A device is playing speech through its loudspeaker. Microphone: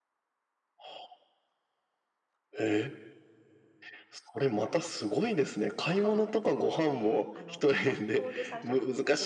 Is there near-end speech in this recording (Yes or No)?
Yes